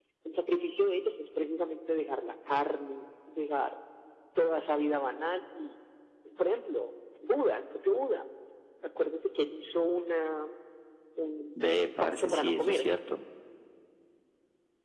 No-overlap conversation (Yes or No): No